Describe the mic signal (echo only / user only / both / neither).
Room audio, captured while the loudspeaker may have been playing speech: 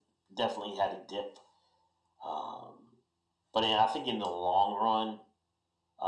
echo only